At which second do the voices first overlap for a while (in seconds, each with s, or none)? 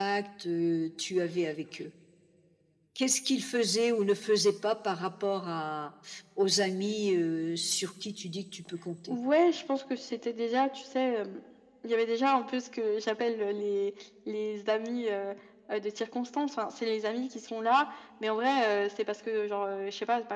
none